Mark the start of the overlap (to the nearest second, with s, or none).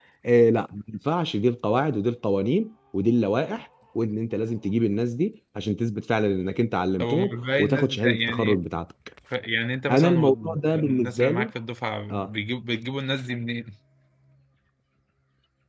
7 s